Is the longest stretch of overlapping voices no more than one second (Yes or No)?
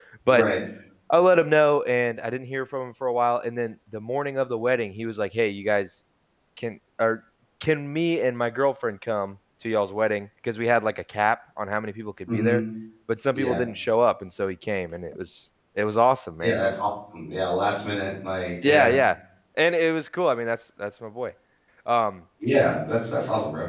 Yes